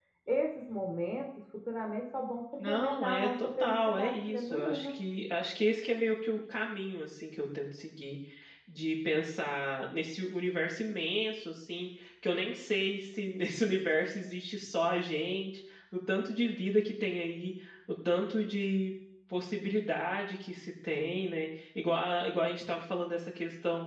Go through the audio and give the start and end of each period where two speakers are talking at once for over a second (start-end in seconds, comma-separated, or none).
2.6-5.0